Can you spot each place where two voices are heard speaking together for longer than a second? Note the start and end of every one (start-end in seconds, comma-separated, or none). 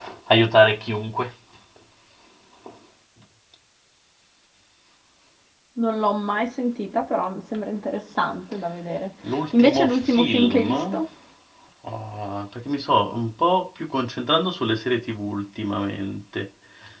9.6-11.0